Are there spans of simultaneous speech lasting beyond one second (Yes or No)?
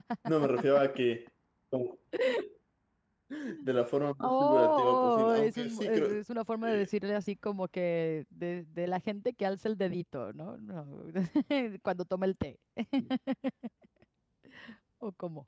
Yes